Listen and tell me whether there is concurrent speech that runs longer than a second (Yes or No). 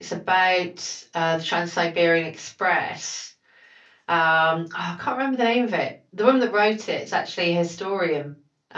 No